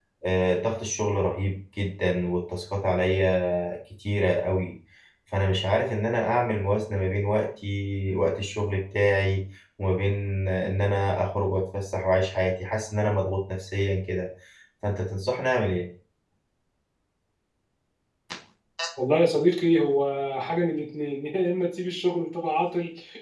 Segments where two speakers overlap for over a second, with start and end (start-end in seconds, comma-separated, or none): none